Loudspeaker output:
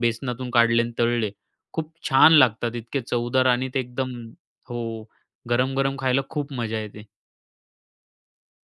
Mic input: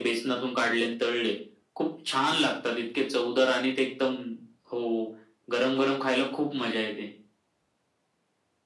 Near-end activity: none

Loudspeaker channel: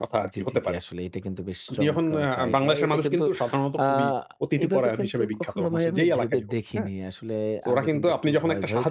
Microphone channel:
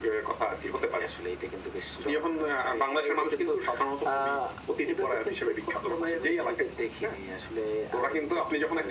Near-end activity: none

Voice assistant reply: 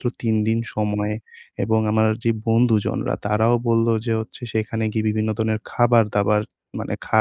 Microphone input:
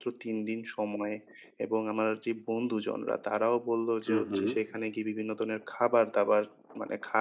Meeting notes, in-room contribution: present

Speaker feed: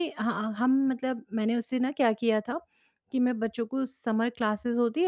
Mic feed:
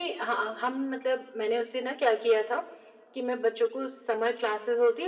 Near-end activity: none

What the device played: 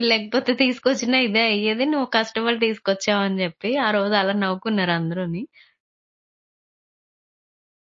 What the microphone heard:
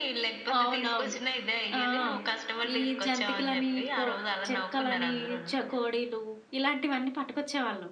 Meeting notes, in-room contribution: present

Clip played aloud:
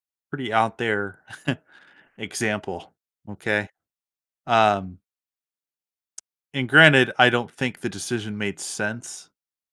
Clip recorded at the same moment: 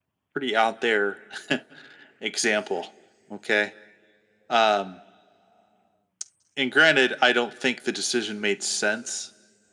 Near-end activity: none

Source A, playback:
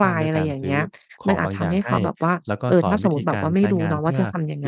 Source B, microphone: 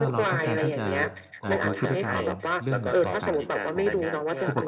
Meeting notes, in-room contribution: present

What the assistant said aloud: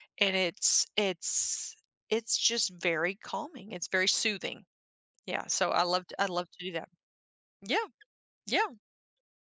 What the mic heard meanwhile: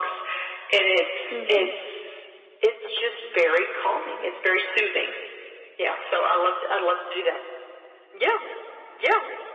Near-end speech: present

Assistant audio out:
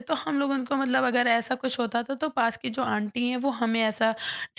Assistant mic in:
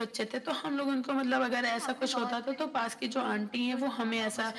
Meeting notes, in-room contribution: present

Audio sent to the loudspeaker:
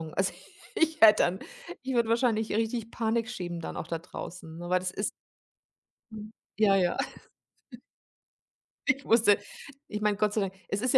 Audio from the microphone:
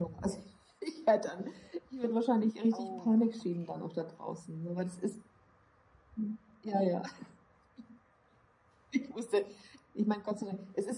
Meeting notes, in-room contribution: present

